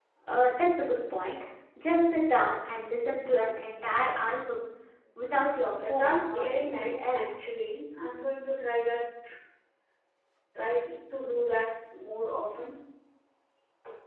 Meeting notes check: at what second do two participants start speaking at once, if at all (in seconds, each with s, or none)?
5.9 s